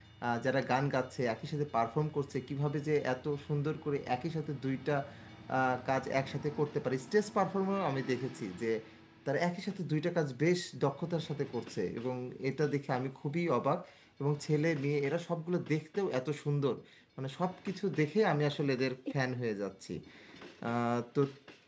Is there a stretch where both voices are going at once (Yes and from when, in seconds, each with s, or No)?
No